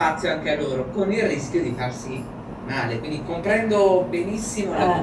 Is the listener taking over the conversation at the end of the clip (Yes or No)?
No